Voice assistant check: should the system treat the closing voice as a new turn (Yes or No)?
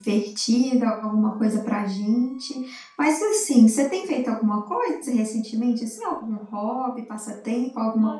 Yes